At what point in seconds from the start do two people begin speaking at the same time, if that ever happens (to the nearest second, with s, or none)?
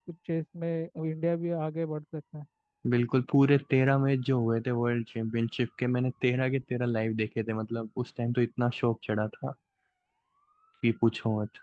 none